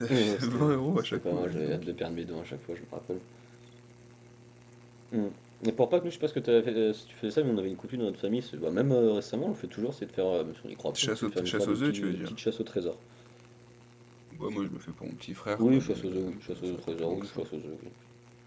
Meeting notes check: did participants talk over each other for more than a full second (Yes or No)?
Yes